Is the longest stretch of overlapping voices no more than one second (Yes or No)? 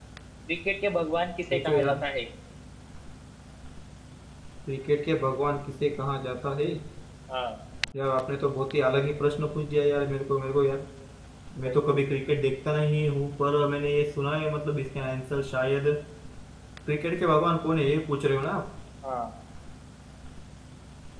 Yes